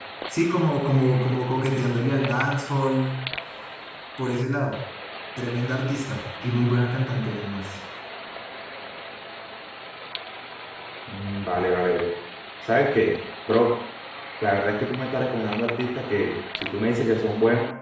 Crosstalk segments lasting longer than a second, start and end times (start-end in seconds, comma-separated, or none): none